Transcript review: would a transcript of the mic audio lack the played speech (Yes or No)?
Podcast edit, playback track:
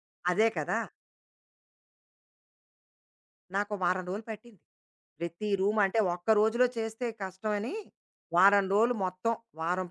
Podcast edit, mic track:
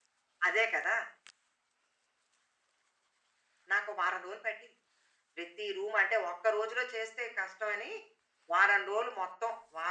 No